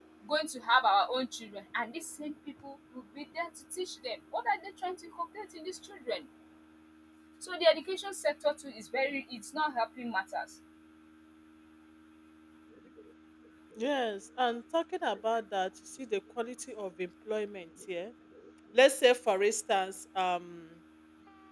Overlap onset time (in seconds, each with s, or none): none